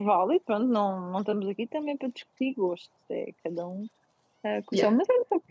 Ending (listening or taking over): listening